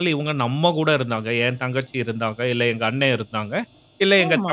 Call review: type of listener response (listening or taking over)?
listening